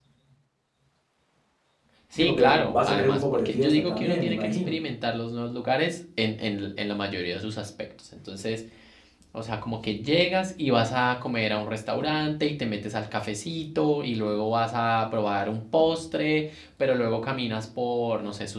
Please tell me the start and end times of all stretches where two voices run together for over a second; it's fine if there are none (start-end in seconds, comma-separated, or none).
2.2-4.8